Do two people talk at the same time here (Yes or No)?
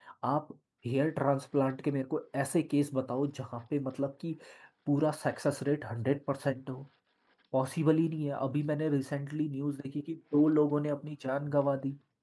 No